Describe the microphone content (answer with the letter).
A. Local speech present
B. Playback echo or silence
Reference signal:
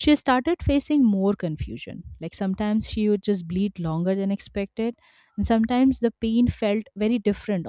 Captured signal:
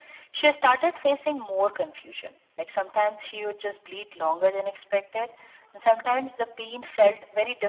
B